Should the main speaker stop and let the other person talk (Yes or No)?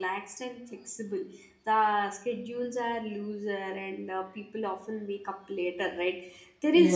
No